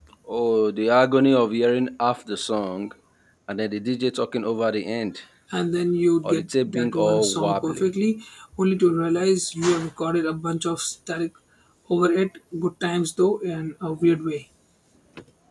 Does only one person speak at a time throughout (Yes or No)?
No